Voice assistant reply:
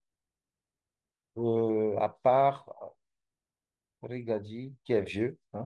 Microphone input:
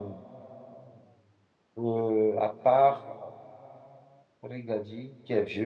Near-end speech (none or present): none